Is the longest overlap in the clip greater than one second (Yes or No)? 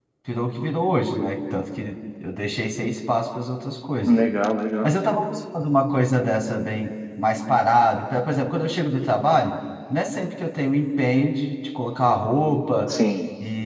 No